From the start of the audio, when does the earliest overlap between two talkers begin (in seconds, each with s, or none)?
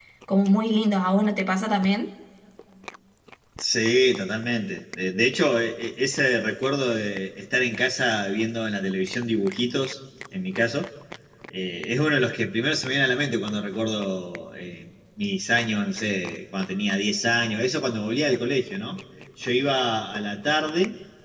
none